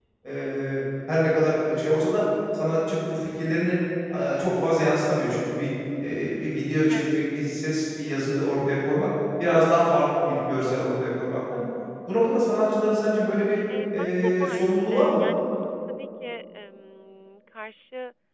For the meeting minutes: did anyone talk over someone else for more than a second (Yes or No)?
Yes